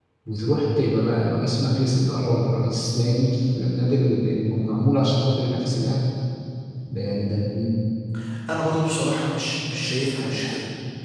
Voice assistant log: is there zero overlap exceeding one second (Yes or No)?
Yes